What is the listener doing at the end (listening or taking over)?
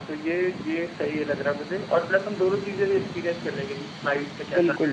taking over